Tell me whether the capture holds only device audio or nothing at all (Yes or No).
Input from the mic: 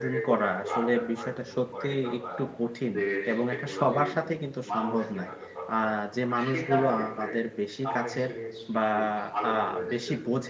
No